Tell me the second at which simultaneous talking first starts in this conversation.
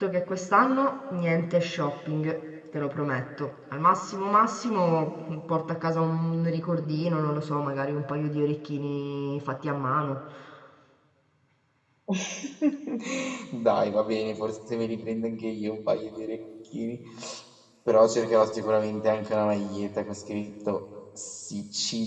none

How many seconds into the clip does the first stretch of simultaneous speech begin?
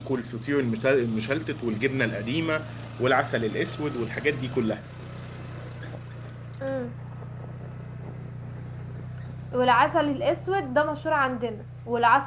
none

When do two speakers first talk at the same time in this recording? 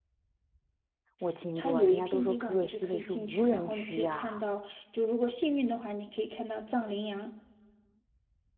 1.6 s

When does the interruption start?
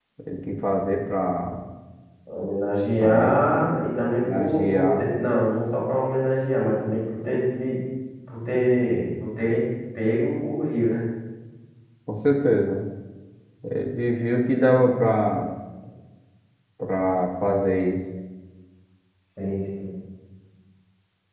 3.0 s

